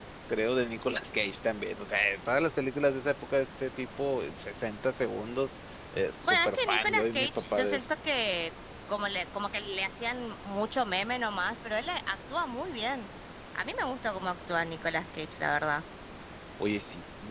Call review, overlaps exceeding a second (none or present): present